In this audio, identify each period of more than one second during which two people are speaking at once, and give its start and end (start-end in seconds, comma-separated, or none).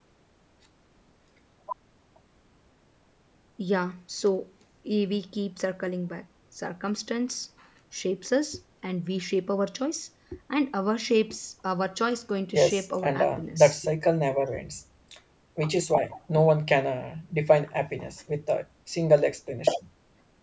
12.5-13.8